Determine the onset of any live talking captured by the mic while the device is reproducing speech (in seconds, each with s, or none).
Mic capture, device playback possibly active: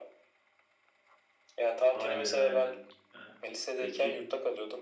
1.9 s